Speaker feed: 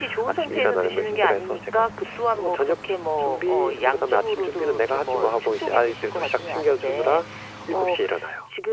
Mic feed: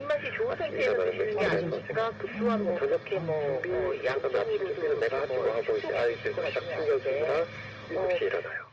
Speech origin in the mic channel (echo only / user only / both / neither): both